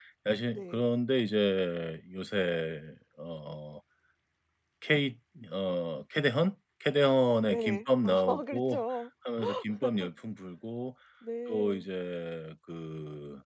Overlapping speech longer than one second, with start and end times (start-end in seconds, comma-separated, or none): 7.5-8.8